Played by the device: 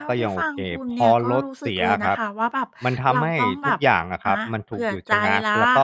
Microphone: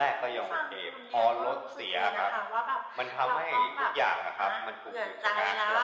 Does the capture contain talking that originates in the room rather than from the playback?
No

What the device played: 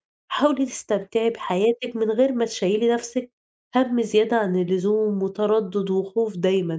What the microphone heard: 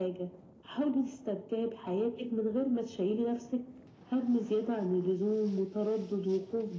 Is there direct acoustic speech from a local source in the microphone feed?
No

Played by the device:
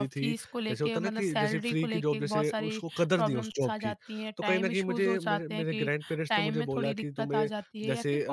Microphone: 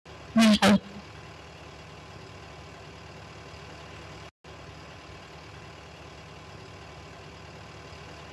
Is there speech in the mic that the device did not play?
Yes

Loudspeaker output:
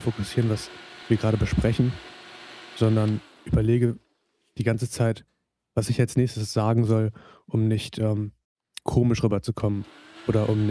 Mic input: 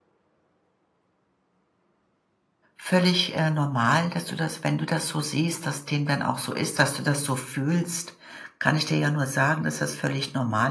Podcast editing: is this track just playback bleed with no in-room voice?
No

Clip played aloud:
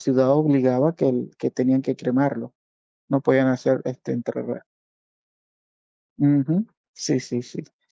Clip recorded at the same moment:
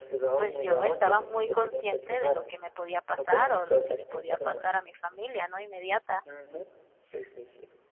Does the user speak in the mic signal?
Yes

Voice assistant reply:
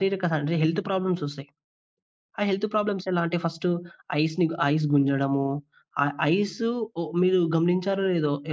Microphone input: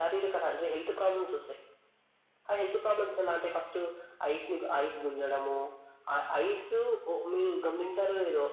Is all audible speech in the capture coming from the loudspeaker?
Yes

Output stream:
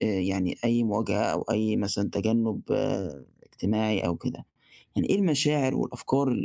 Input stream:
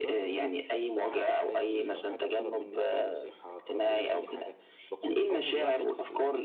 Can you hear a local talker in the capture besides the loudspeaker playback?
Yes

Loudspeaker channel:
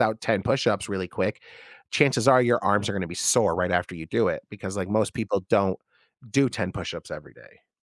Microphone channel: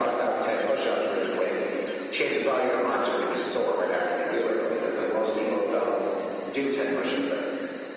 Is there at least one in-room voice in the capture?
No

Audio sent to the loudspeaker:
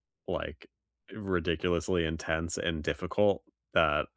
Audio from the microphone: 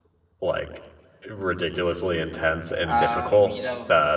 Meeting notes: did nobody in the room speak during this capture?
No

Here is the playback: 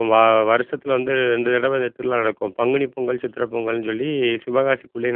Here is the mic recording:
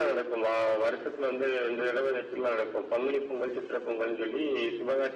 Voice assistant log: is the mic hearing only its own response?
Yes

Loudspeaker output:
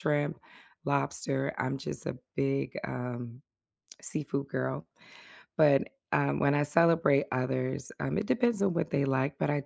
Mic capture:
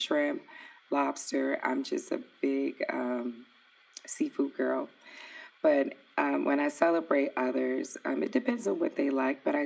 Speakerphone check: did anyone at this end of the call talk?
No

